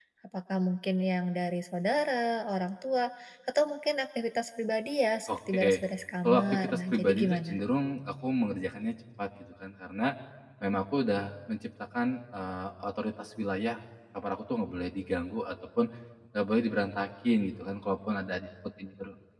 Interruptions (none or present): present